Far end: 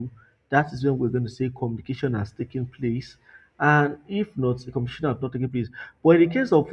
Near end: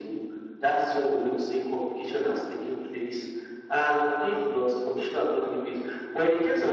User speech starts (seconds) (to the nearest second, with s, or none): none